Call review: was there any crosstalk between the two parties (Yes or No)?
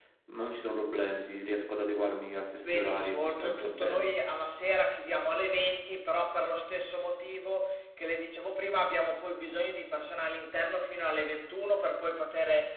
Yes